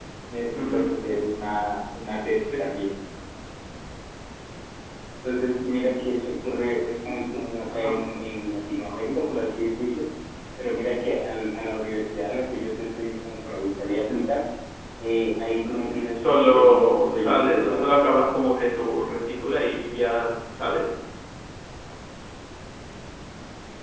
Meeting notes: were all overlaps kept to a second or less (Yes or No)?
No